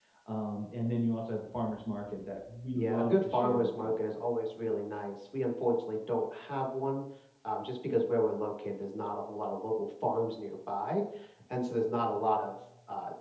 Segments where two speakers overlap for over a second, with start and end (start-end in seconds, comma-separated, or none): 2.8-4.1